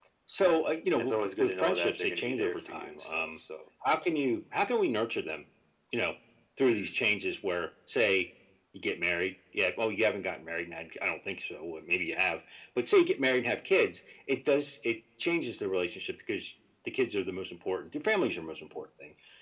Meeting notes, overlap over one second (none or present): present